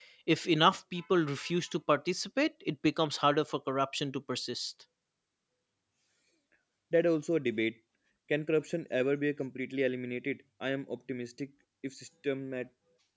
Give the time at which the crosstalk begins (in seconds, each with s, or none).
none